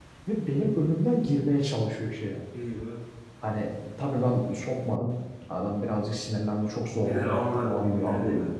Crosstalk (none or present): present